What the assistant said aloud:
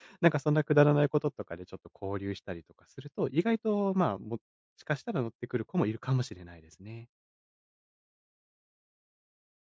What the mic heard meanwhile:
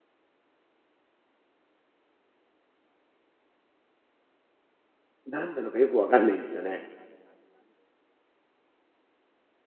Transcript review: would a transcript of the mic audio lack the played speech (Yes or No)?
Yes